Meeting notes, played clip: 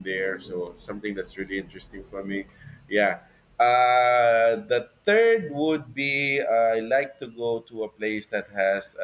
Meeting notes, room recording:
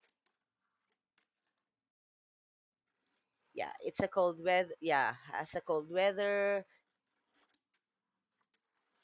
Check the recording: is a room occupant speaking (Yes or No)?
Yes